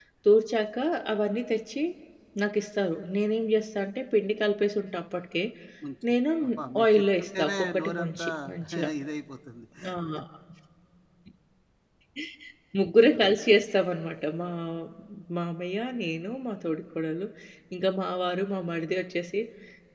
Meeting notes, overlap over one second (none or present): present